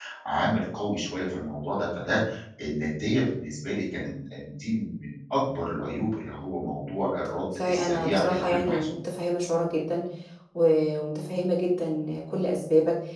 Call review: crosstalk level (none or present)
present